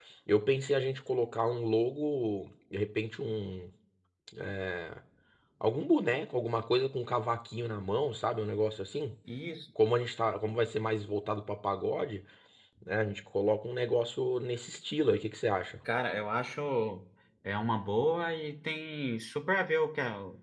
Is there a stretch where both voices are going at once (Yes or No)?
No